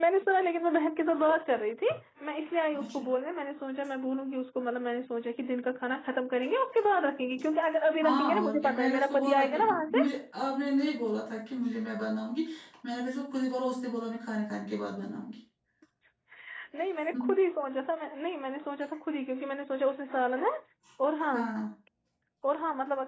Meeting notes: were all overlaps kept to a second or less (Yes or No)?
No